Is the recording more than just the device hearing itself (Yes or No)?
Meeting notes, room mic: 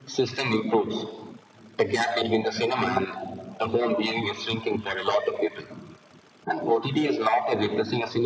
No